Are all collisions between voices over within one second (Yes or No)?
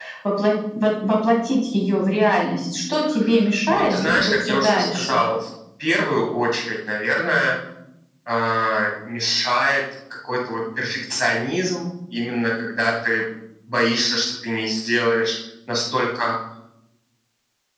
No